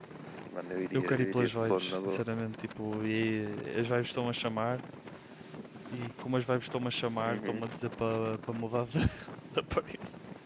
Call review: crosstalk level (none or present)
present